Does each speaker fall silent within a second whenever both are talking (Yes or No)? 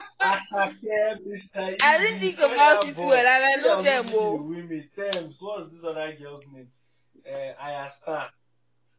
No